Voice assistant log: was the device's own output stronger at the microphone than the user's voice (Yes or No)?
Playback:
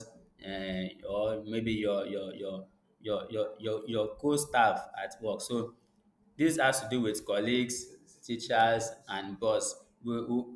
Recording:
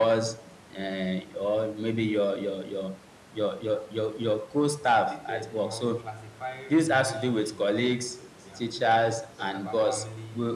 Yes